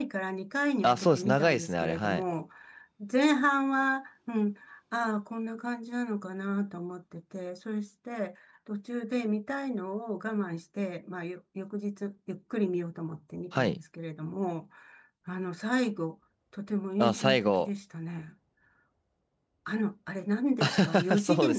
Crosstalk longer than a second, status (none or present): present